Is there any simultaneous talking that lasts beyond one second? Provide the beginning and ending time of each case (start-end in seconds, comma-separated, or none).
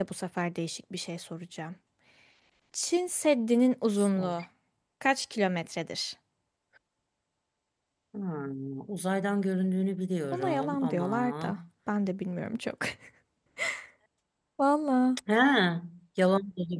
10.3-11.6